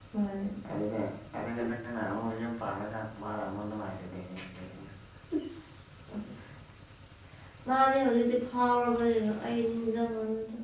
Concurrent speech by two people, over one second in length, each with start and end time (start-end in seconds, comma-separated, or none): none